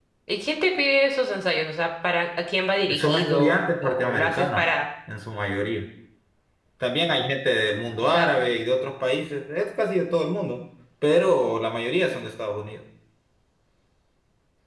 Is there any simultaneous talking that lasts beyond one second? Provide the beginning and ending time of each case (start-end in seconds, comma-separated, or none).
2.9-4.6